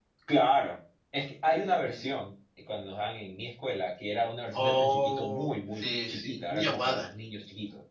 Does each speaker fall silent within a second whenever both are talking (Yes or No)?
No